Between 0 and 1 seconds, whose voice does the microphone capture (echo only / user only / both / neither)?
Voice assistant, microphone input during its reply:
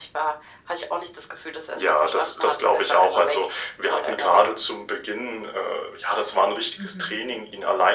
echo only